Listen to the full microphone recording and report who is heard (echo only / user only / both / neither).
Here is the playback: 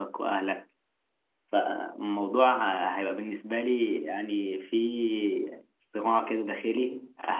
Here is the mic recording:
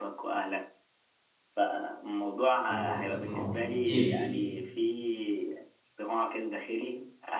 both